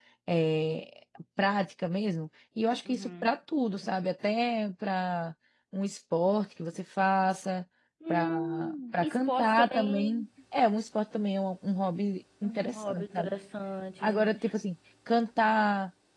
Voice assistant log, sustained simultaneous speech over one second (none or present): present